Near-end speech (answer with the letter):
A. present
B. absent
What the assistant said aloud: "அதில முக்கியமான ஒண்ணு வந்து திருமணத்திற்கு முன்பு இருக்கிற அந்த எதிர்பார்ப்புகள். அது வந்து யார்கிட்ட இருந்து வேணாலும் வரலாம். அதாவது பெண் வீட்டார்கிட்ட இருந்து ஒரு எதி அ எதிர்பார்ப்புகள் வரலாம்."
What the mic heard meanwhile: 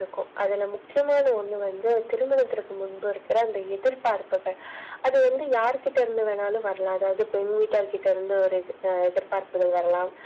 B